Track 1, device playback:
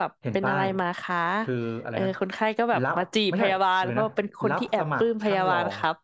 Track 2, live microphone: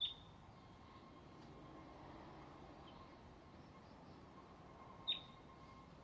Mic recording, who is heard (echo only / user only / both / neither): neither